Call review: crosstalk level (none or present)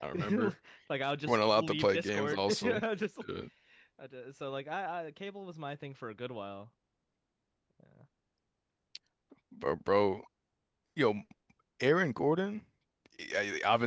present